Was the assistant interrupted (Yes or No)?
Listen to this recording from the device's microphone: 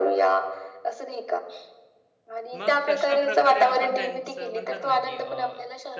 Yes